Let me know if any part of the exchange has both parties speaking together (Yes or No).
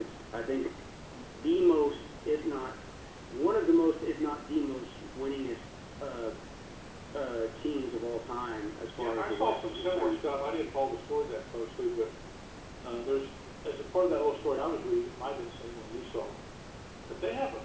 Yes